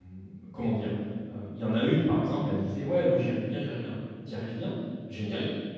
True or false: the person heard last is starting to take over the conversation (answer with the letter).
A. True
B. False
B